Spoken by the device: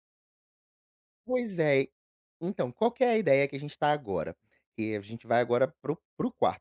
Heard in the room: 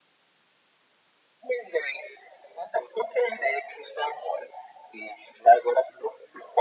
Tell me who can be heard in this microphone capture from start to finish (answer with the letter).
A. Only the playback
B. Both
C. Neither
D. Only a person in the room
A